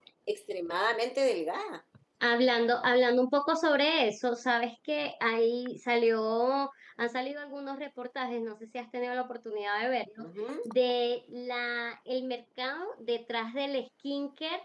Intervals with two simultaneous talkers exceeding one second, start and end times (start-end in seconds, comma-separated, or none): none